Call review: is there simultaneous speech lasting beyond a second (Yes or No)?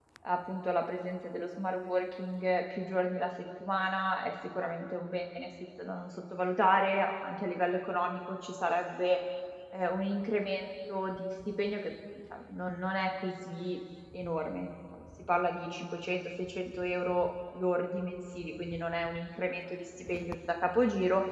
No